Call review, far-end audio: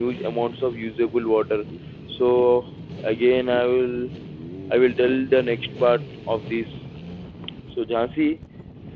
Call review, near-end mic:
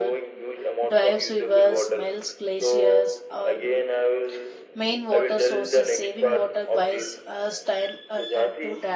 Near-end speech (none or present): present